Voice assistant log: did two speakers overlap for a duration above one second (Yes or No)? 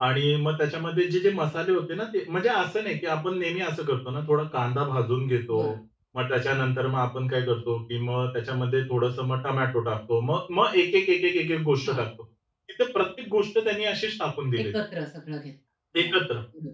No